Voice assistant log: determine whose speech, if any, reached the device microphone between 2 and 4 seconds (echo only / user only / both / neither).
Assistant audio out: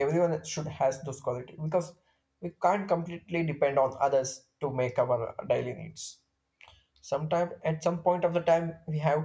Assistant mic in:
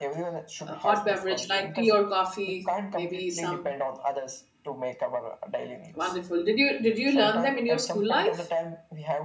both